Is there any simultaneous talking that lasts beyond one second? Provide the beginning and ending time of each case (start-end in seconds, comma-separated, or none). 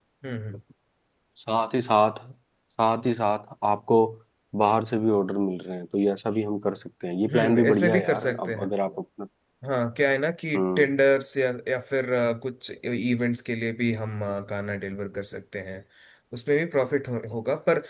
7.3-8.7